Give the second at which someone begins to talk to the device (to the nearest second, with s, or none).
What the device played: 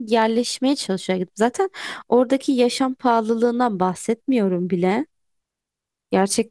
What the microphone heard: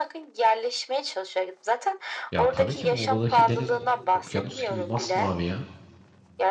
2 s